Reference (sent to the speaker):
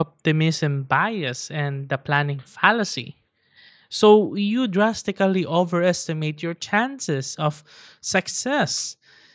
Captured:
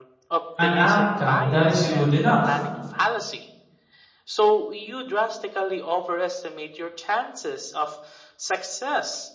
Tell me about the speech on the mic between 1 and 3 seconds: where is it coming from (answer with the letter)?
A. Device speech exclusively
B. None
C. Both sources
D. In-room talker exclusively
C